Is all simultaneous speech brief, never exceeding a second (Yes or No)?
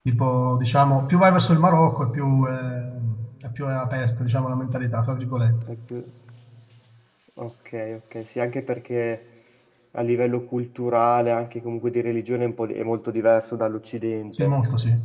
Yes